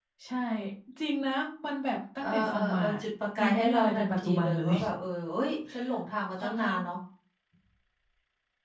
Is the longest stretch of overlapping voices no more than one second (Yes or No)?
No